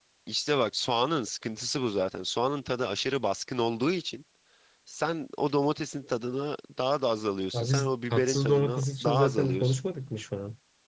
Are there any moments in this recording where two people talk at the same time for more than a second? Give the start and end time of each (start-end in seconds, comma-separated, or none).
7.5-9.7